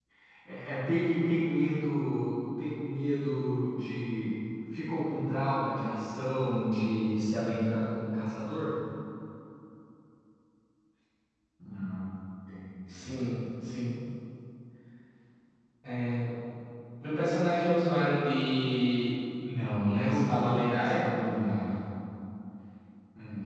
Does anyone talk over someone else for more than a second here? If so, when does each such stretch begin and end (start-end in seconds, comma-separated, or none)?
19.8-21.1